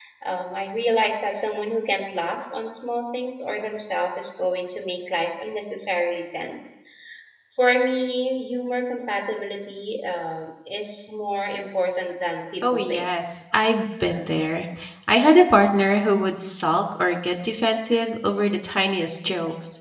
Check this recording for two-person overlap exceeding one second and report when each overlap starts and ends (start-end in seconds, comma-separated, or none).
none